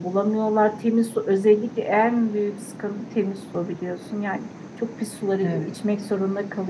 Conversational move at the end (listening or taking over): listening